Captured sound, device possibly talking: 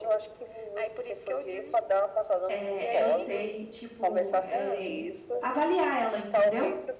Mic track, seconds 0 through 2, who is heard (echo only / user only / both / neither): echo only